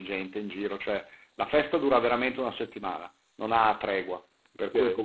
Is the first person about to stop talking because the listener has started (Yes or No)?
Yes